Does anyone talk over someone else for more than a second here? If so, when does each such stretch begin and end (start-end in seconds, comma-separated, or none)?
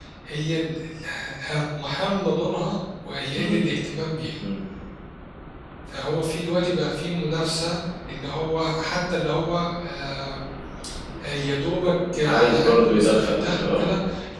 12.2-13.9